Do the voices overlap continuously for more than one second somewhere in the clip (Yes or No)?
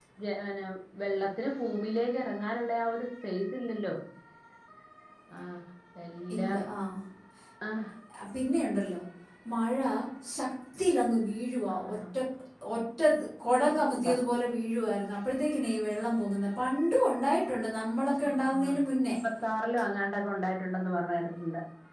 No